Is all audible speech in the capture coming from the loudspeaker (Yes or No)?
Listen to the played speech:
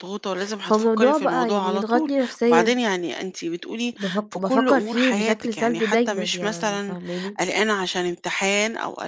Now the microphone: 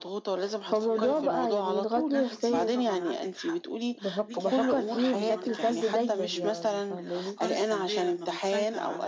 No